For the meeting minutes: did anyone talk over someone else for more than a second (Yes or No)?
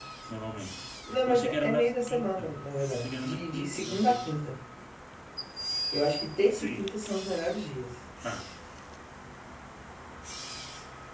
Yes